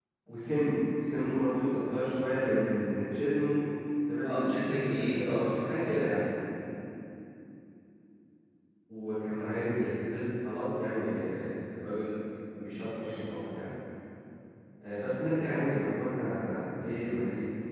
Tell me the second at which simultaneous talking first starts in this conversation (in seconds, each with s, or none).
4.2 s